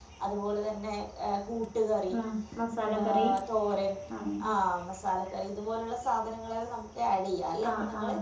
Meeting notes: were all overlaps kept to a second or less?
Yes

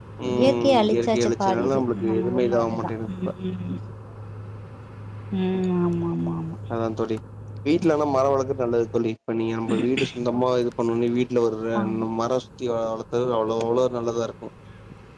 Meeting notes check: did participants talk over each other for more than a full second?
Yes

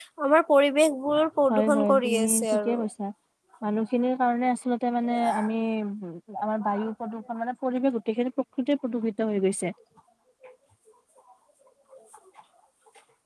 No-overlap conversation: No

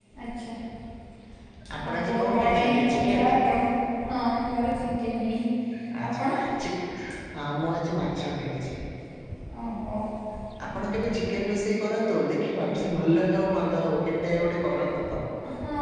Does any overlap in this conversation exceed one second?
Yes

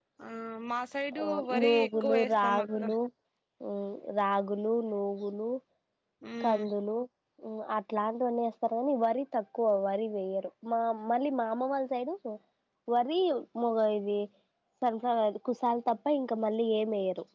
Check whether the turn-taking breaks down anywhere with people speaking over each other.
Yes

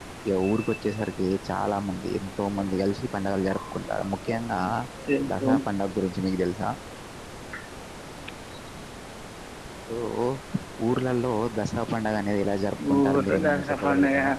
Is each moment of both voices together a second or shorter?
No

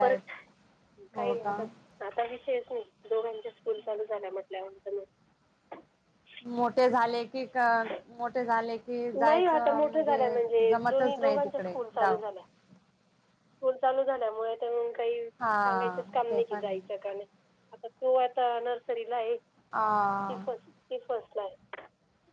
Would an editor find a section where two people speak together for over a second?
Yes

